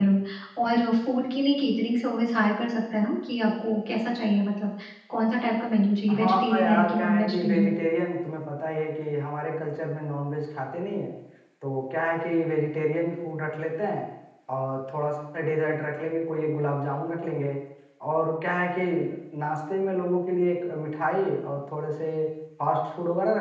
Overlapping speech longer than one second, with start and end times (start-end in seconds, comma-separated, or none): 6.1-7.8